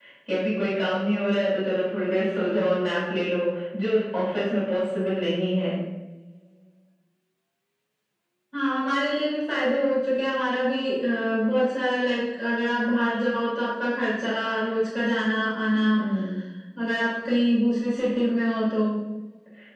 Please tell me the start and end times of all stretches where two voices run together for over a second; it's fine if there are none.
none

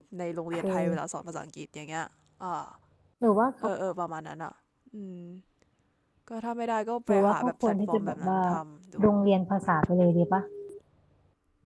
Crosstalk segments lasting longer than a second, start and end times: 7.1-8.4

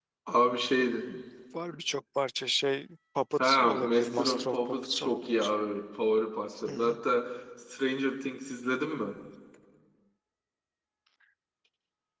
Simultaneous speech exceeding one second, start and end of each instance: 3.4-5.2

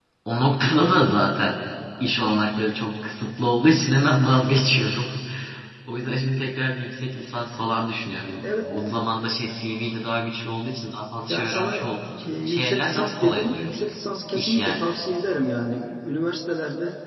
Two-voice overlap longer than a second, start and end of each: 12.3-13.8

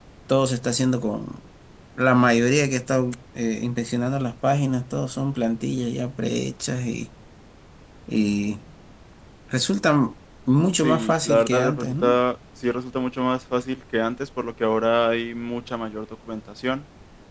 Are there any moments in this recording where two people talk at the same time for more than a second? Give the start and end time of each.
10.8-12.2

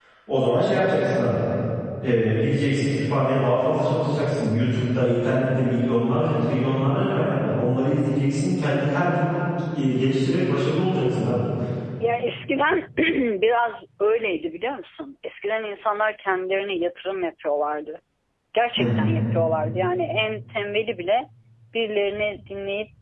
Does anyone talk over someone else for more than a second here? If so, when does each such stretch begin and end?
none

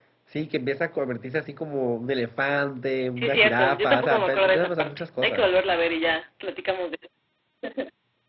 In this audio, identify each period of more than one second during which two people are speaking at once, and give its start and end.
3.2-5.4

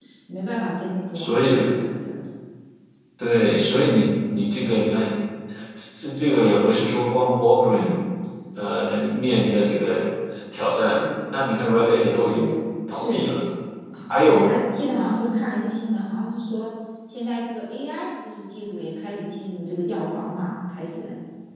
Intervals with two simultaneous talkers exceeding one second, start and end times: none

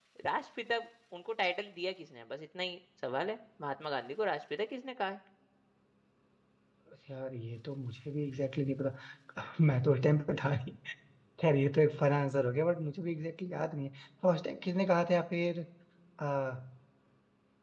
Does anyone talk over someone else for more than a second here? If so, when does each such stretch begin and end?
none

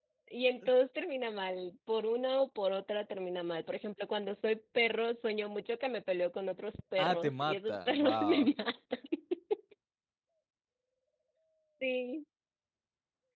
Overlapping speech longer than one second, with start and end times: 7.0-8.5

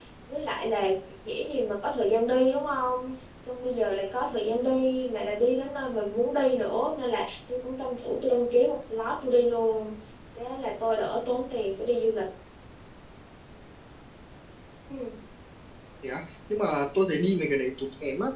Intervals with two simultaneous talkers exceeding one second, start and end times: none

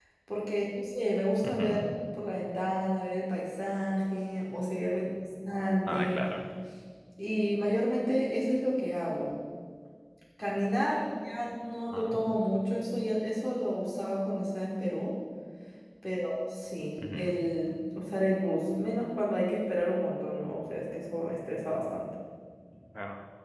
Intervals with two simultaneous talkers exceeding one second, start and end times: none

